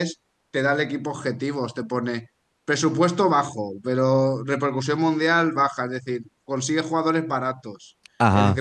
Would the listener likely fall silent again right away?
Yes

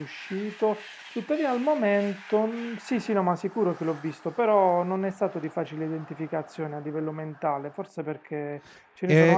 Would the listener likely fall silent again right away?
Yes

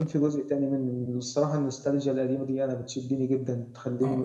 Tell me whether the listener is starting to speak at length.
Yes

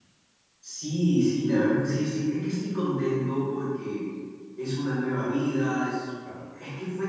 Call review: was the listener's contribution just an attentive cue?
Yes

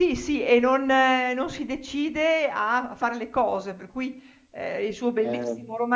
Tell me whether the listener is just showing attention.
Yes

